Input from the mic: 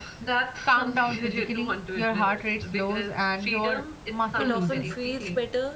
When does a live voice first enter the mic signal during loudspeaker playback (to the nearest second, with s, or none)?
4 s